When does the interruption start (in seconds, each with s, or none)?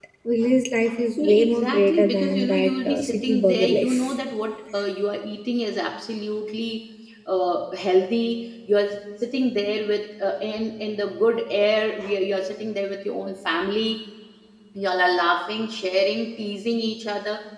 1.2 s